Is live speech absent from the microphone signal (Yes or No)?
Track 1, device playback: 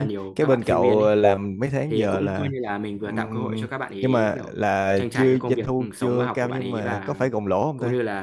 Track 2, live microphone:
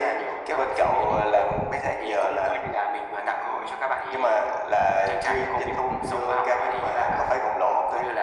Yes